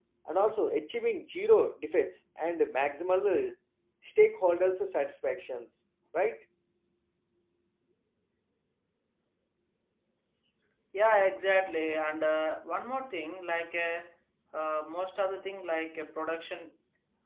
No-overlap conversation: Yes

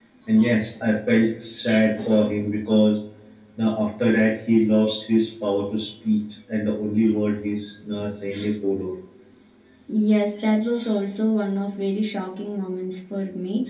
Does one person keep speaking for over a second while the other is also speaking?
No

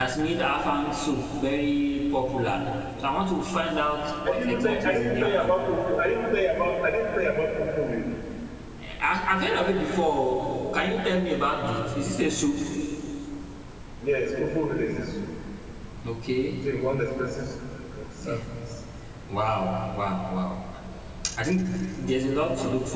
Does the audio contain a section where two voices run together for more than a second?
Yes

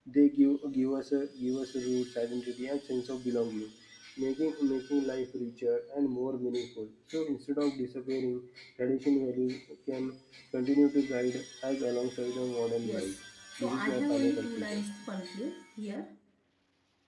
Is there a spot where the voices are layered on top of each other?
Yes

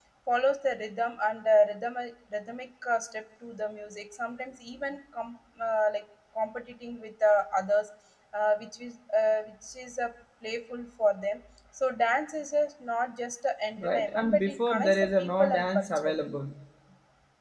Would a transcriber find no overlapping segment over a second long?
No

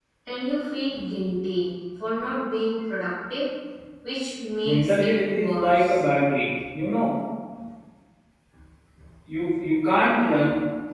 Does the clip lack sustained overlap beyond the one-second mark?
No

